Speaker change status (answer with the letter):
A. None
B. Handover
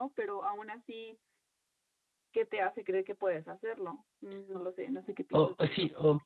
B